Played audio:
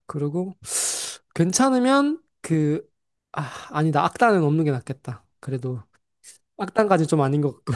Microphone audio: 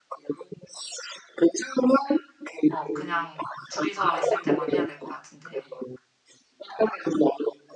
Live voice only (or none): 어, 그냥 둘이서 있을 때만 해야 될 것 같은데,